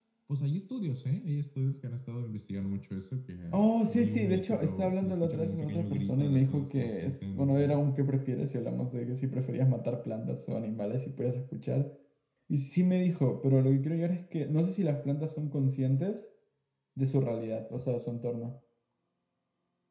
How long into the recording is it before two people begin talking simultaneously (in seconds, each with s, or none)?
3.5 s